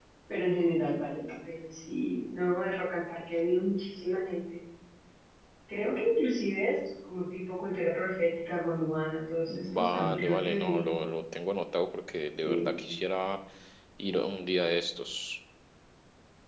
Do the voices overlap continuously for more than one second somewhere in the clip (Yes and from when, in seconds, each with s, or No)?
Yes, from 9.5 s